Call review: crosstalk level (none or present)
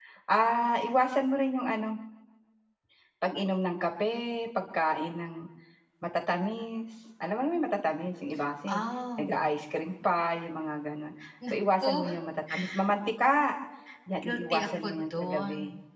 present